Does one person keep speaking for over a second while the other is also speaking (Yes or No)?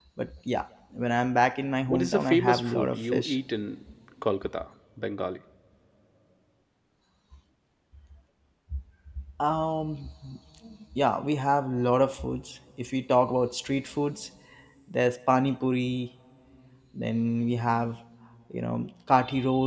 Yes